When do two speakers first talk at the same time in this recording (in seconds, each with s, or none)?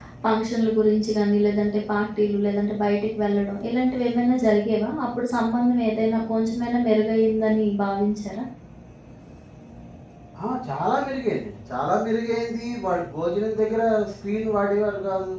none